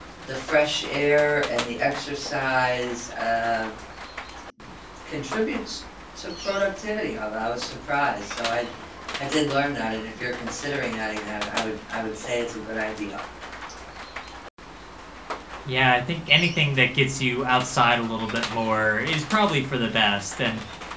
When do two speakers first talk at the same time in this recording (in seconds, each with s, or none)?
none